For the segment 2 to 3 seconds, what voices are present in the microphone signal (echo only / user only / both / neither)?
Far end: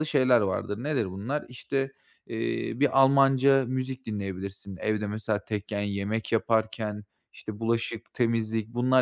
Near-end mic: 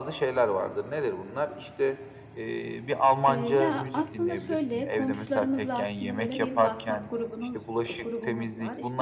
echo only